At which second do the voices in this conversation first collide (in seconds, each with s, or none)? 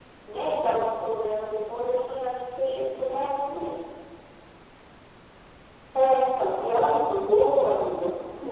none